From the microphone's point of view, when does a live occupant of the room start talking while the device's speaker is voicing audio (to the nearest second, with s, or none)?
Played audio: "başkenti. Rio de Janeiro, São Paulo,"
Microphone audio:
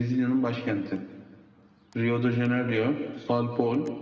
none